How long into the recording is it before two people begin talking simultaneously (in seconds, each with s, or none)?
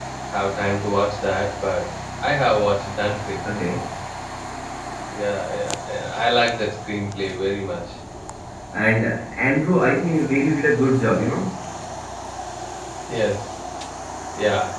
none